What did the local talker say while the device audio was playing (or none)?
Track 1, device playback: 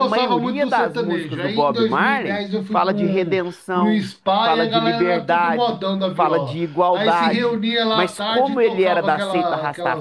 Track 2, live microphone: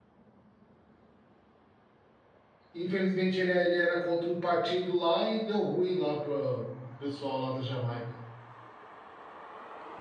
Infelizmente ele, é, ele era contra um partido lá e deu ruim lá para o pessoal lá da Jamaica.